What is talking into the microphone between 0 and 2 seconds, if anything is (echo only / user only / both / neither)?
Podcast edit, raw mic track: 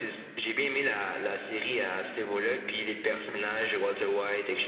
echo only